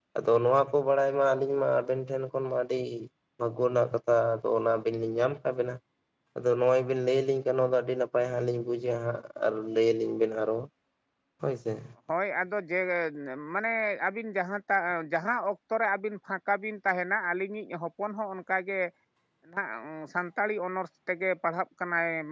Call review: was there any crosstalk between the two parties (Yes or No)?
No